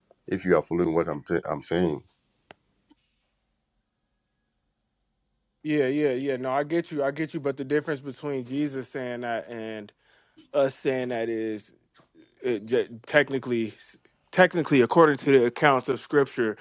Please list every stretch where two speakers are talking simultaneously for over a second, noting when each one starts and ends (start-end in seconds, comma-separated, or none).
none